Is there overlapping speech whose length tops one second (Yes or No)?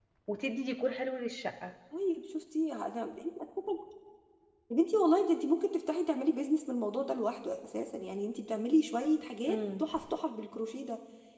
No